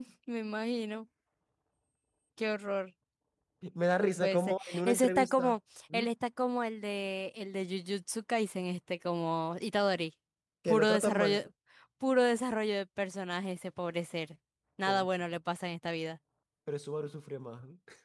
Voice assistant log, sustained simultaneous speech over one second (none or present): present